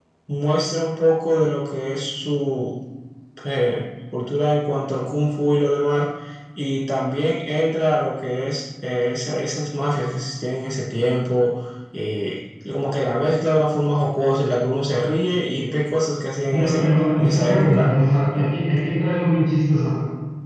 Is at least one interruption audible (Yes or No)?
Yes